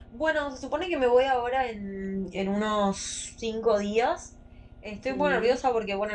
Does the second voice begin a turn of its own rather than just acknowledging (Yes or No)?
No